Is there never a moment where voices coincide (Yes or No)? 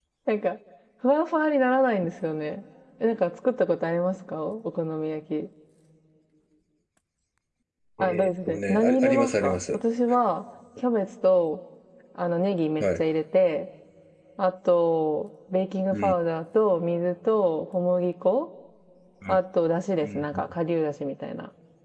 No